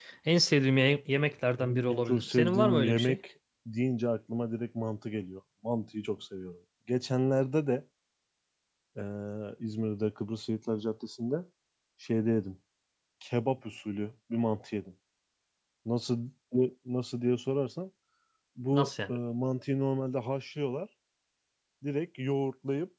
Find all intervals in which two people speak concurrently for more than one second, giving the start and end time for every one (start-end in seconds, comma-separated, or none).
1.6-3.2